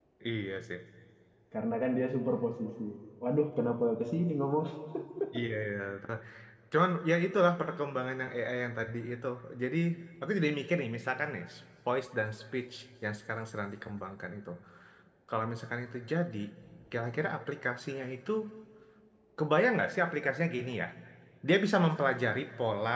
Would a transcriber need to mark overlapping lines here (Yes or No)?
No